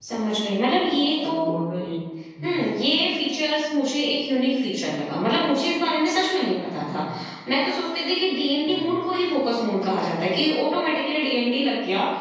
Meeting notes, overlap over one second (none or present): none